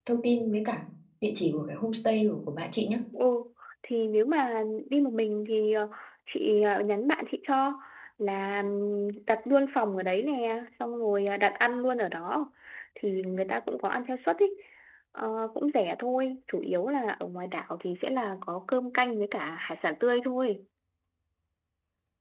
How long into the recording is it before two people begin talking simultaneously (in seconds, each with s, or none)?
none